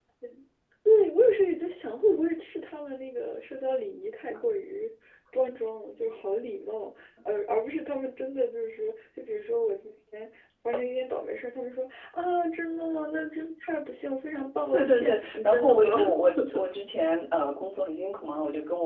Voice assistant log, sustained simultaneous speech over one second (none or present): present